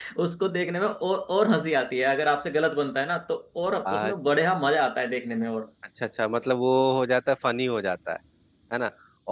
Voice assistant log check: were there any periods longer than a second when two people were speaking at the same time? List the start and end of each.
none

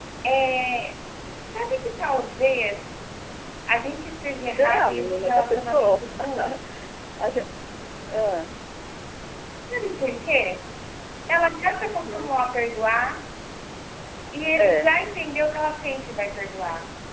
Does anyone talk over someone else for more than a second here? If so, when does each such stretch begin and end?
4.5-6.0

